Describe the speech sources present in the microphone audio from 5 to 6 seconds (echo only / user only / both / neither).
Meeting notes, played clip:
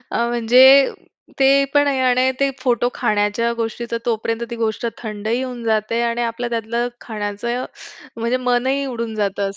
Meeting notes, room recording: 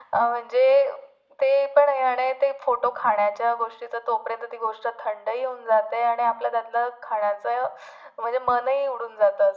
echo only